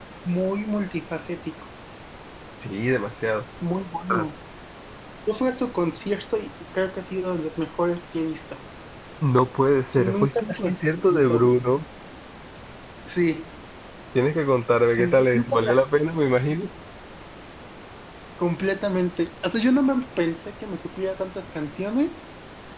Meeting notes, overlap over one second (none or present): present